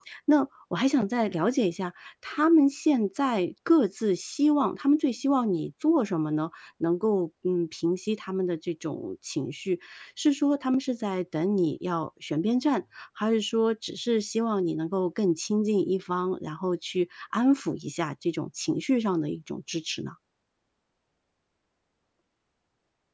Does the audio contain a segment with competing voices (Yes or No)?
No